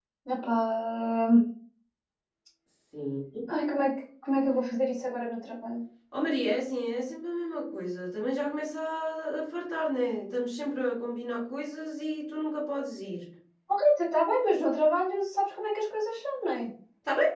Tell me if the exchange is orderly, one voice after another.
Yes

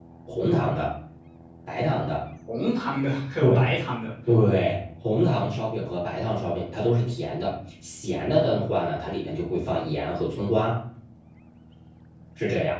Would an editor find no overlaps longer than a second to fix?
Yes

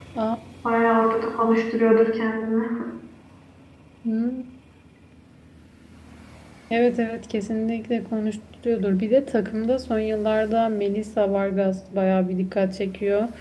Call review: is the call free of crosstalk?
Yes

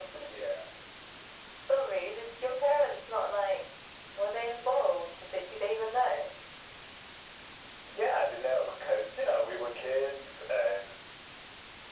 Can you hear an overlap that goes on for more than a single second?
No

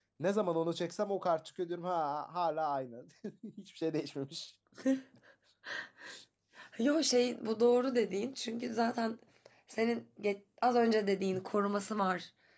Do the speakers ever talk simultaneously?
No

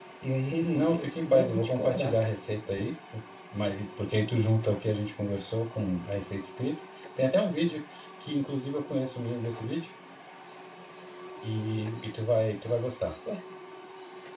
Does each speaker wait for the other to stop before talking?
No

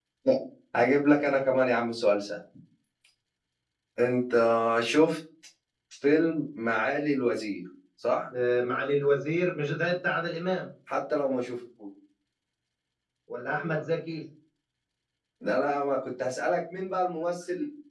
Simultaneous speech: No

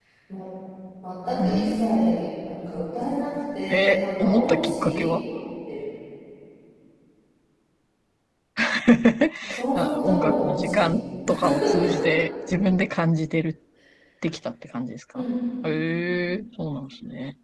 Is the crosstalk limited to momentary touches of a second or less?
No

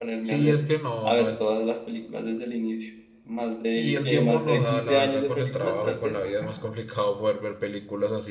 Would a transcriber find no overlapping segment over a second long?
No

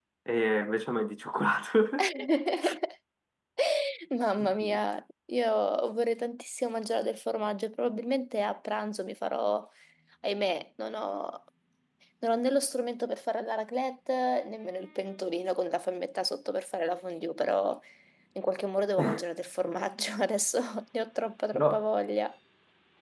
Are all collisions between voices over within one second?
Yes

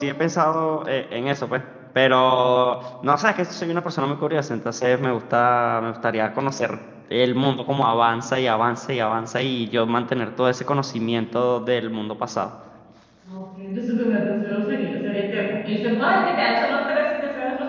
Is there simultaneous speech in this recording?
No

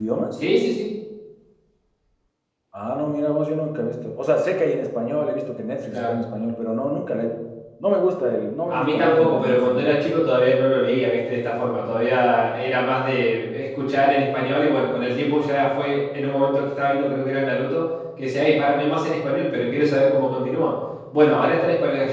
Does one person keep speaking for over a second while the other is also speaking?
Yes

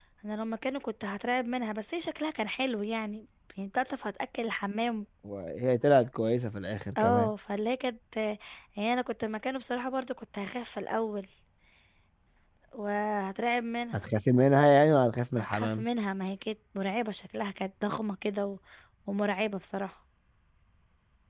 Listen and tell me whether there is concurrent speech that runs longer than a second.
No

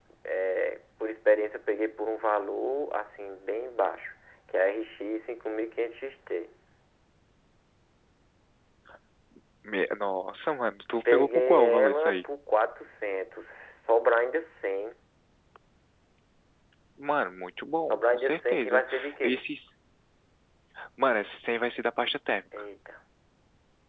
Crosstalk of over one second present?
Yes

